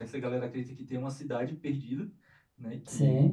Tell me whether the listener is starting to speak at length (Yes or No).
No